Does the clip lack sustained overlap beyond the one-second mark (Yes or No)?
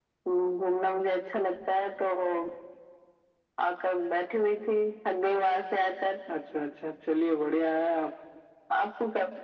Yes